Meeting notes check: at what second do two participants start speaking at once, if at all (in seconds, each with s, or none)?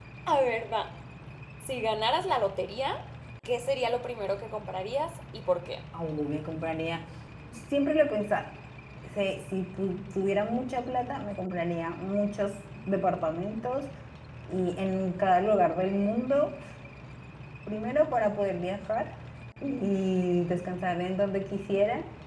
none